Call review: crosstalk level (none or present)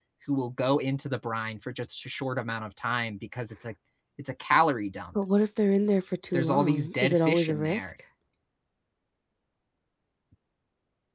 present